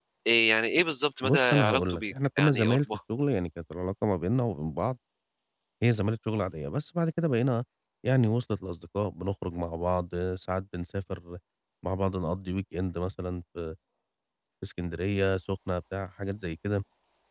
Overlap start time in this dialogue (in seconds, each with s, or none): 1.2 s